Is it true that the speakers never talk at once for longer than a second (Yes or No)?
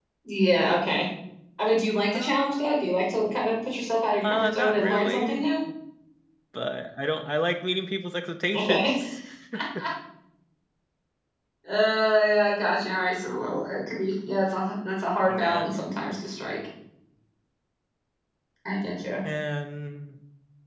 No